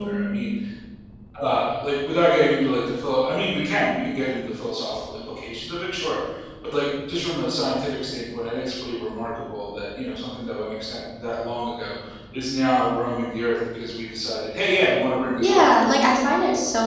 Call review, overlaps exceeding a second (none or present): none